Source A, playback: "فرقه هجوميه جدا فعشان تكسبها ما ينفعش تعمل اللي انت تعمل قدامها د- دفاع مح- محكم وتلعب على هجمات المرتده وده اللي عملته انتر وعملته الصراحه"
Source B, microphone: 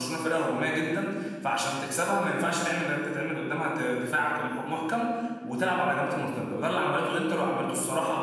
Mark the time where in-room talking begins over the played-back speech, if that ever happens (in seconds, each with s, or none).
none